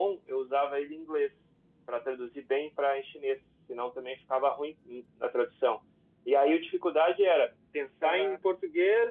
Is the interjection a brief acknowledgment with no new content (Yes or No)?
Yes